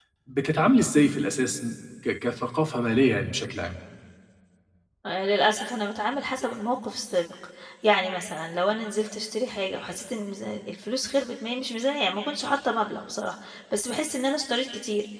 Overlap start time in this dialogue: none

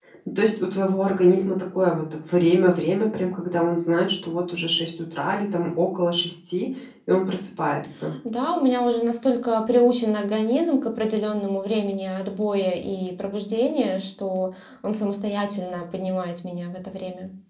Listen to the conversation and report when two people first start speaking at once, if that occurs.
none

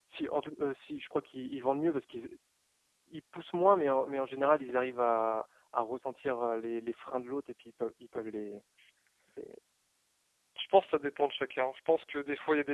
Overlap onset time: none

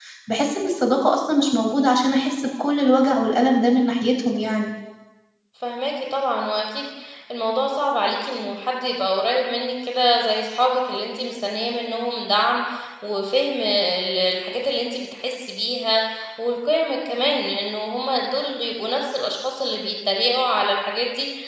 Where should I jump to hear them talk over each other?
none

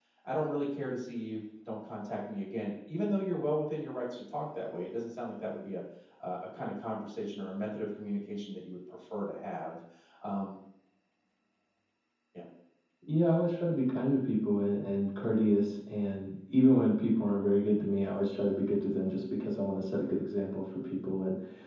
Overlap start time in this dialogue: none

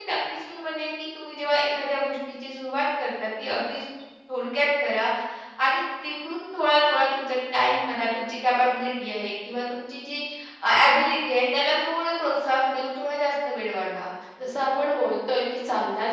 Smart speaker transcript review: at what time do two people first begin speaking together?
none

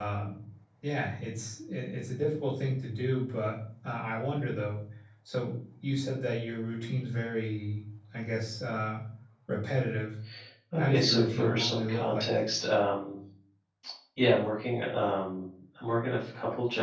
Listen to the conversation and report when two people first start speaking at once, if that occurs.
10.8 s

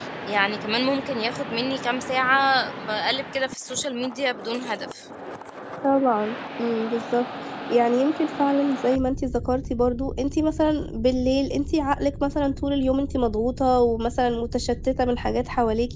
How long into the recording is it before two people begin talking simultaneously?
none

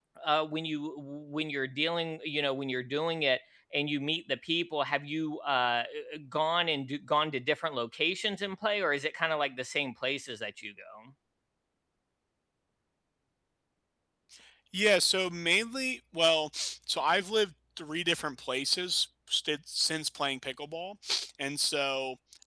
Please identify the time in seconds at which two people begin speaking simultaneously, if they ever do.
none

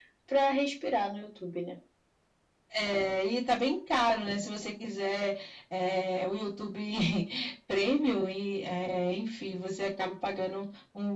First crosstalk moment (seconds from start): none

